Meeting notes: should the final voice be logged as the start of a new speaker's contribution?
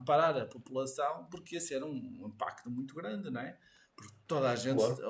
No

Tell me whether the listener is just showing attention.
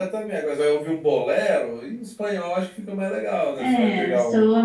No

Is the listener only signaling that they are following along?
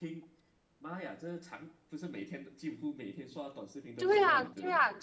No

